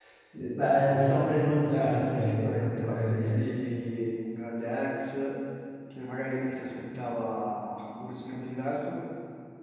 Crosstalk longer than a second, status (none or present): present